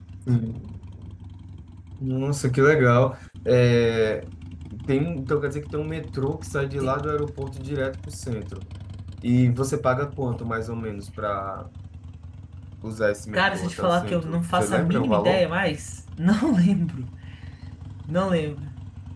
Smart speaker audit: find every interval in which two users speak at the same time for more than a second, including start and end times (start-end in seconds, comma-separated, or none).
13.3-15.4